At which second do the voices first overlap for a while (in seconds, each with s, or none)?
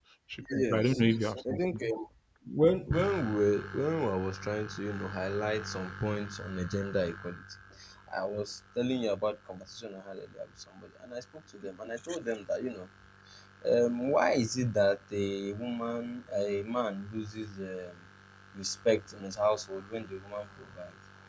0.5 s